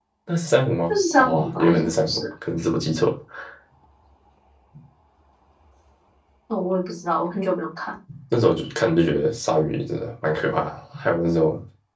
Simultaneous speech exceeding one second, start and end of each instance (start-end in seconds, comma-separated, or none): 0.9-2.2